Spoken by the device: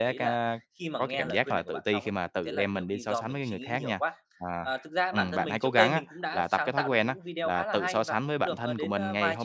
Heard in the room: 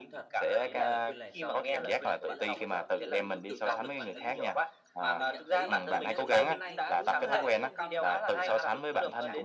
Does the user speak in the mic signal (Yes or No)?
Yes